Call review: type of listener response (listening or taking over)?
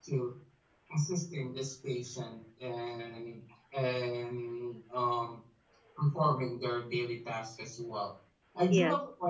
listening